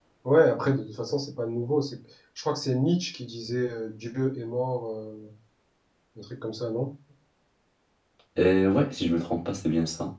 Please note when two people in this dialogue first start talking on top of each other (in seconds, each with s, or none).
none